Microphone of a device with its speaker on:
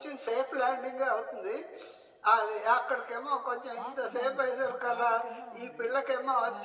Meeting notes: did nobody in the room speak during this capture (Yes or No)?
No